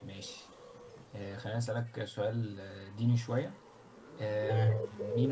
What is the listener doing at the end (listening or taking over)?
listening